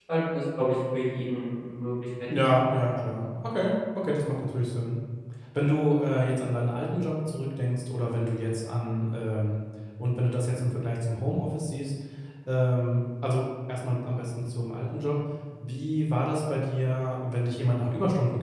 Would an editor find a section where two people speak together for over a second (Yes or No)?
No